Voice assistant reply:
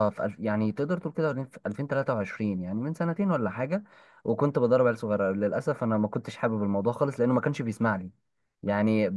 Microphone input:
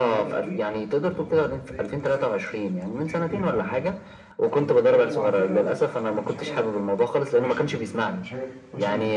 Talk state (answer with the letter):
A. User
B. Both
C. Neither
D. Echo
B